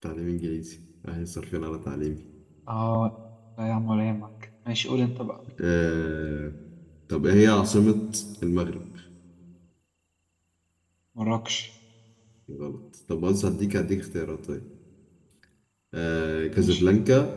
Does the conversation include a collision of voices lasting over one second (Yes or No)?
No